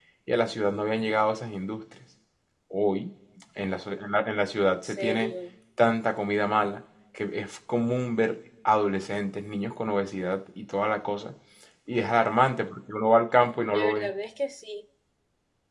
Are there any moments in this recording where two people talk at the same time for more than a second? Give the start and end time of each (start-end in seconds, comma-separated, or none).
none